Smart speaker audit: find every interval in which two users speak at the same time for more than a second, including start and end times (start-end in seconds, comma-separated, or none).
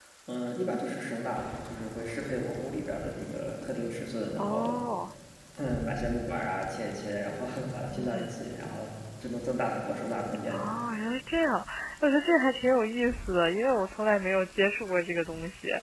none